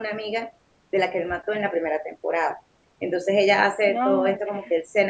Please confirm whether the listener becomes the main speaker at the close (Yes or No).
No